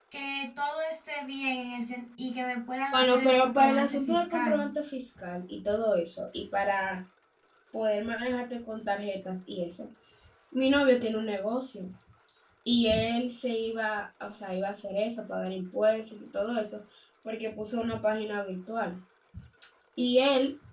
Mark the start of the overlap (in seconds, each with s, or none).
2.9 s